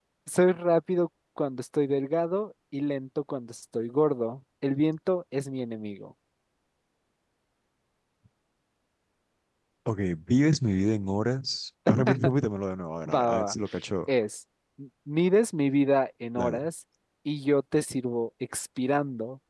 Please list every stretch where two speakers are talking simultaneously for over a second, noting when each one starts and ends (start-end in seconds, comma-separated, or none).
none